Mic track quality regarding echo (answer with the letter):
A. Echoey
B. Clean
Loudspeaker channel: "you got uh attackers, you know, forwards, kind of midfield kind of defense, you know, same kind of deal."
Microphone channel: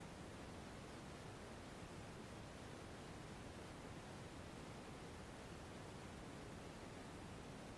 B